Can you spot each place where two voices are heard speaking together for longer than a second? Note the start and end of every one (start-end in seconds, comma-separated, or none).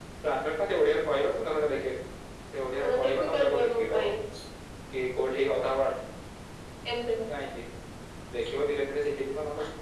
2.8-4.1